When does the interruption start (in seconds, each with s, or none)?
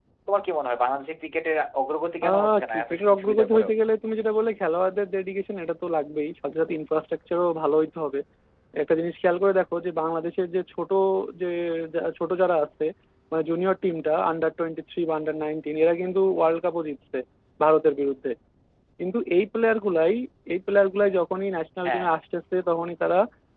2.3 s